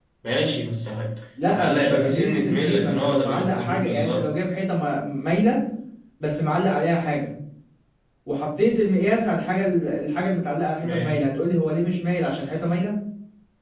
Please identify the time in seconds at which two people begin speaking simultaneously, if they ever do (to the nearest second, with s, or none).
1 s